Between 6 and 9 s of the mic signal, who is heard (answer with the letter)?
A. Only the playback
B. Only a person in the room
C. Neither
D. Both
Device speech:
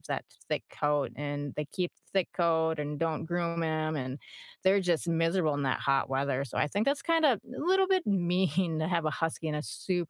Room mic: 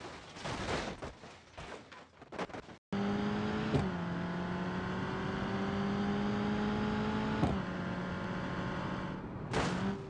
C